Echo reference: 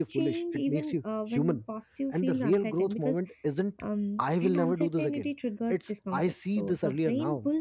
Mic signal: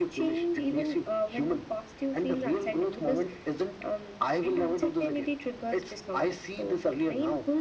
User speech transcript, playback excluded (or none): none